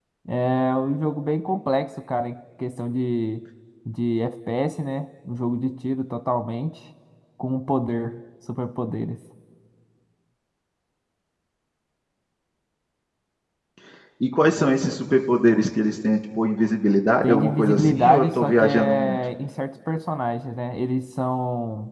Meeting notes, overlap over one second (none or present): present